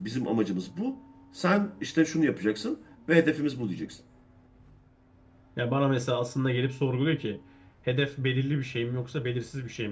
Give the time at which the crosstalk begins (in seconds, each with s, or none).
none